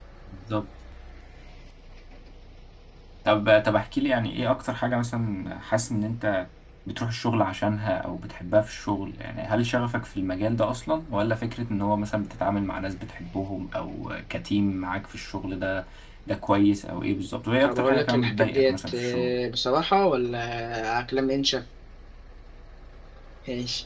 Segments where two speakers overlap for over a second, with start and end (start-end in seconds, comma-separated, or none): 17.6-19.3